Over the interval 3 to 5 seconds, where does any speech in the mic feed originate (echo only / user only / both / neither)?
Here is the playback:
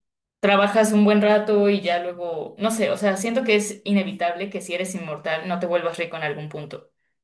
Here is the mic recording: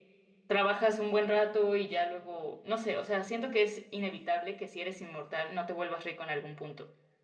echo only